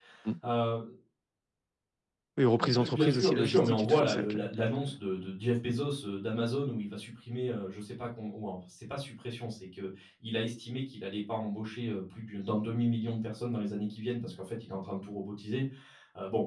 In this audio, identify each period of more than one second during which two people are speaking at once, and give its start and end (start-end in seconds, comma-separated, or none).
2.6-4.4